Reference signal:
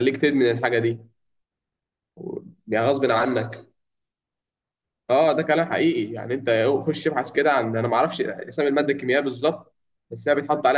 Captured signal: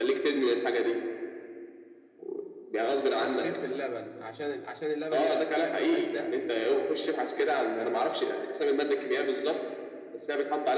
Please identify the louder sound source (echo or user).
echo